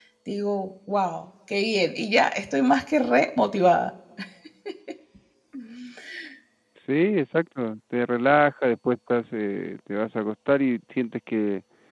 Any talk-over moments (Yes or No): No